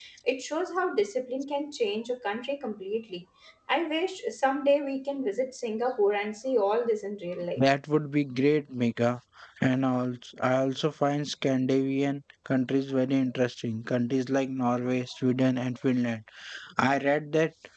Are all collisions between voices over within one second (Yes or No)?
Yes